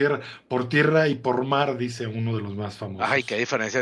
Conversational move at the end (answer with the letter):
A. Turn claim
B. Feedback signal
A